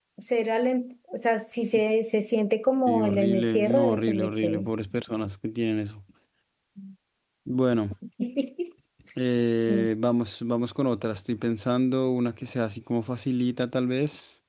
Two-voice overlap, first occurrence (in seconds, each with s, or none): 2.9 s